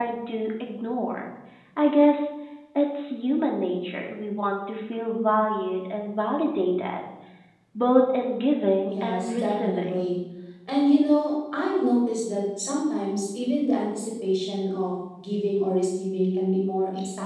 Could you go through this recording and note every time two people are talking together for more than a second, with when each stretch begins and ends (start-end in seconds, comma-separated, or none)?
8.9-10.1